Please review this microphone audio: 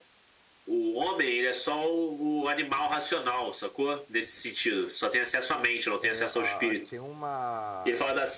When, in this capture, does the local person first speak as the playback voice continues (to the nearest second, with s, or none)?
6 s